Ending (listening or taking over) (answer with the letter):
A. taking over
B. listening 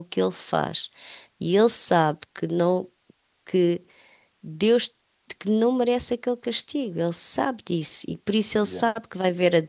B